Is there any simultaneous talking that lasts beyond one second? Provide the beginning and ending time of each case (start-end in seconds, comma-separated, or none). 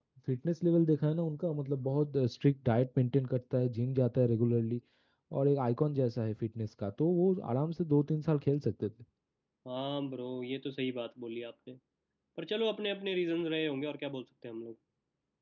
none